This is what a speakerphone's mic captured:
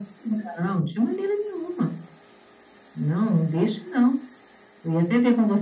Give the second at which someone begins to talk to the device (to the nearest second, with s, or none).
none